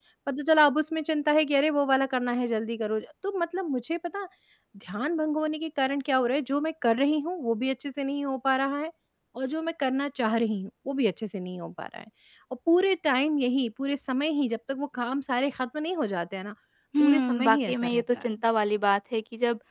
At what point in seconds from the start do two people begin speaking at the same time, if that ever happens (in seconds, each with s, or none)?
17.0 s